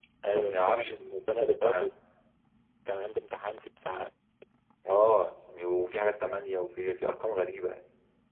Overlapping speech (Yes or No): Yes